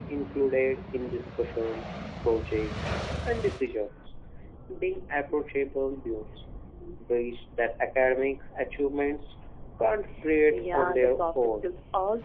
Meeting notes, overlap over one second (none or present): present